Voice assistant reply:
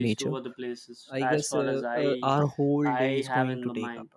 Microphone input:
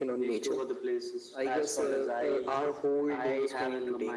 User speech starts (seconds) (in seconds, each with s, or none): none